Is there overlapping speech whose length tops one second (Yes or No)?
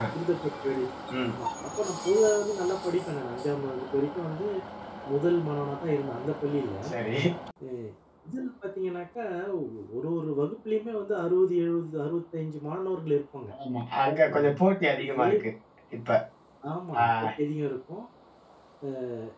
No